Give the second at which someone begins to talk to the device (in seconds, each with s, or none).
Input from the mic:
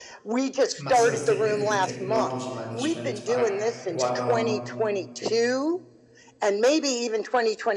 0.8 s